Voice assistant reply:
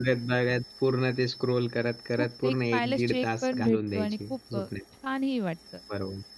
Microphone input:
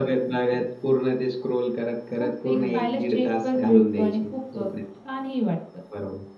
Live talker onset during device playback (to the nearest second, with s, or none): 3 s